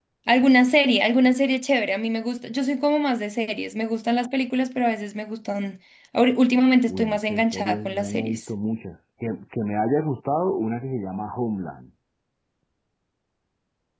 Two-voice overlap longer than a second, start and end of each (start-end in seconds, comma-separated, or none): 6.9-8.4